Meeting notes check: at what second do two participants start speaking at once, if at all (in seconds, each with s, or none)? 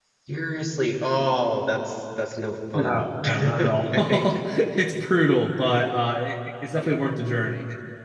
2.7 s